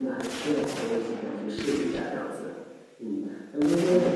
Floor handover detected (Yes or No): No